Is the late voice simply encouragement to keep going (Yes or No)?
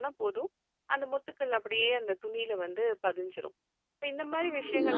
No